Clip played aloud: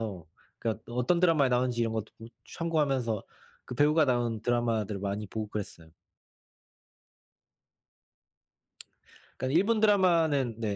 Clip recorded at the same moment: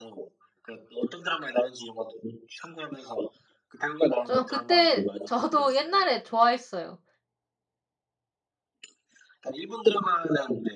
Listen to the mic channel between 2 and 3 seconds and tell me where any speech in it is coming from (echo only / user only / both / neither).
echo only